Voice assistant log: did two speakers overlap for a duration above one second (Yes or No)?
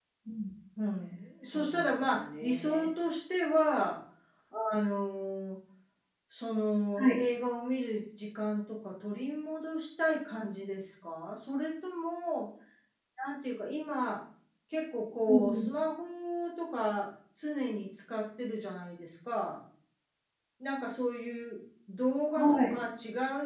Yes